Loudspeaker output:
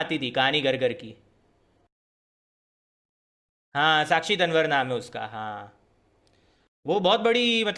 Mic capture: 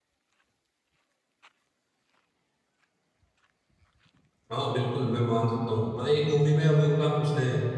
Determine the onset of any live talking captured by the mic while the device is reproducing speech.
5 s

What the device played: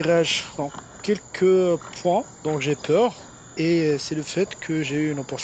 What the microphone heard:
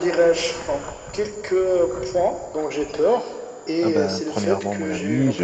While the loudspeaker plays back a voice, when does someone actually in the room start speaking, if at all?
4 s

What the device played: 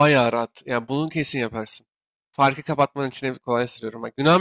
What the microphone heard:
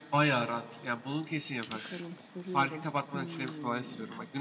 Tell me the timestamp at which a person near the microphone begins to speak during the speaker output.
2 s

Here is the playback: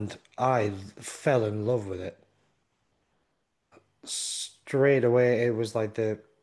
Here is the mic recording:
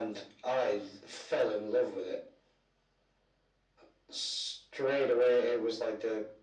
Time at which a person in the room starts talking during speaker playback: none

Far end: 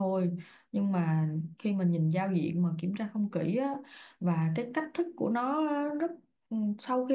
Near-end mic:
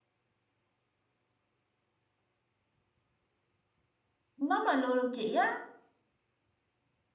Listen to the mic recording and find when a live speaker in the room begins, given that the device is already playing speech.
4 s

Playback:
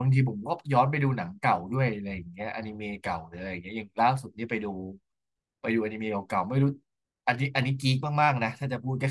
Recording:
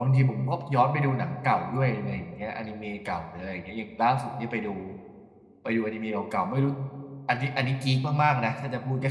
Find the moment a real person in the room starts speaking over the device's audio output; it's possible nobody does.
none

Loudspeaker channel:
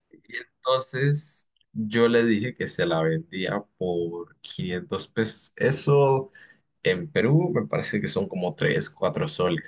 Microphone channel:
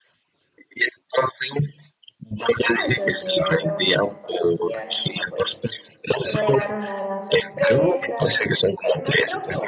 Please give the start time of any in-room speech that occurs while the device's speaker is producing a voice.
3 s

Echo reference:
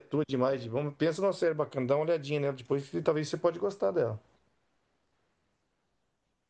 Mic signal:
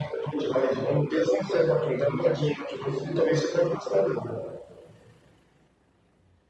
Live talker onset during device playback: none

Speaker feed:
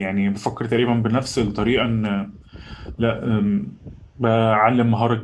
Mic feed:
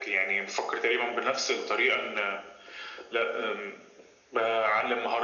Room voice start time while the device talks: none

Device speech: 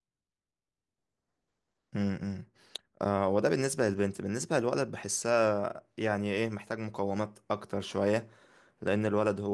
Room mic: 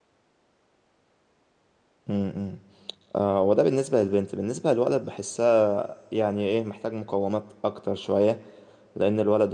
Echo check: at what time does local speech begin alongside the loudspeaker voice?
none

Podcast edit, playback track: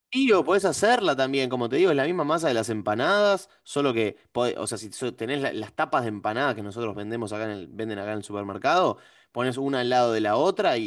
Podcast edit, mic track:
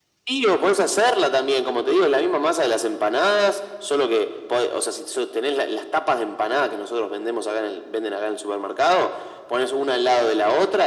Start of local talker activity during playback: none

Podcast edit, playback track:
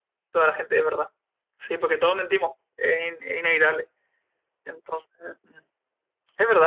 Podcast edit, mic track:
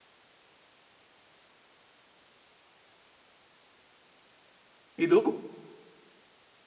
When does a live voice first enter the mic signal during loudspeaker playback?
5 s

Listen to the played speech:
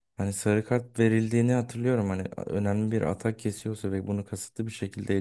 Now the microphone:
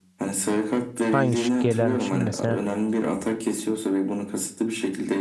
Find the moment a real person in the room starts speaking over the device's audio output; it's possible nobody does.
1 s

